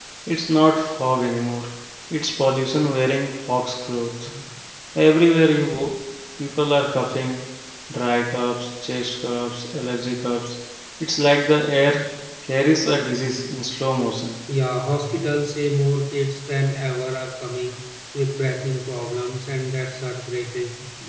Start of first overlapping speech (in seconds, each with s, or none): none